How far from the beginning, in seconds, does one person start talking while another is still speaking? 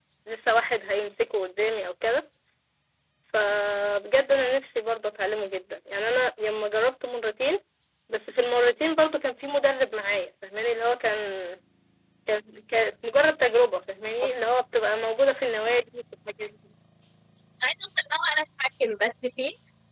none

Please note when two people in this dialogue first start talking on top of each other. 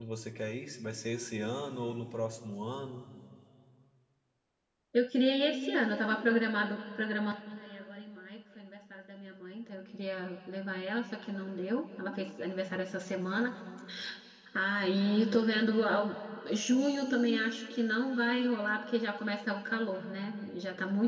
none

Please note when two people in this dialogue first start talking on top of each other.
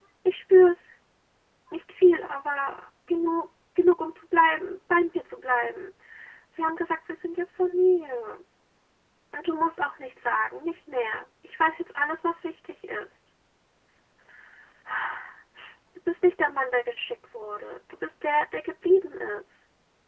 none

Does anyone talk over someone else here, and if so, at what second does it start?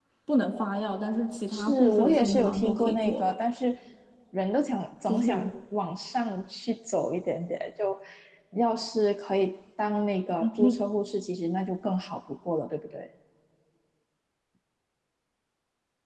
1.5 s

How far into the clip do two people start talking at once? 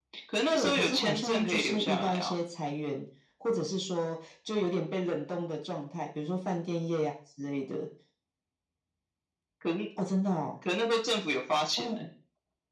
0.5 s

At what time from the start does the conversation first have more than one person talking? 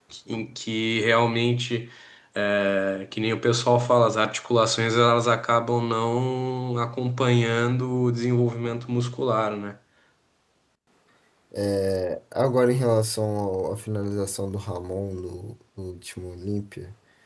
none

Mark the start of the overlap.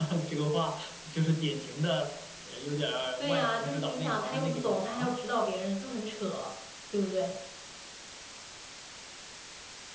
3.2 s

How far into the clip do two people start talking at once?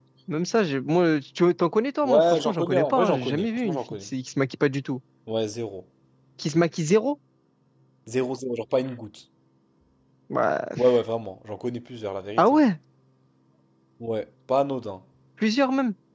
2.0 s

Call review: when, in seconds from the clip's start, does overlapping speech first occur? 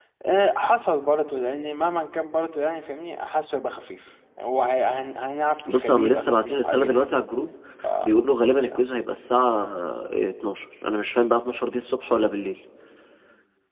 5.6 s

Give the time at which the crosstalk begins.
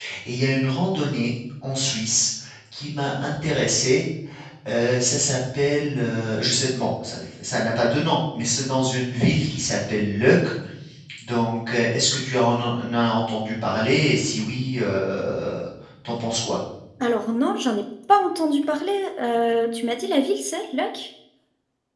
none

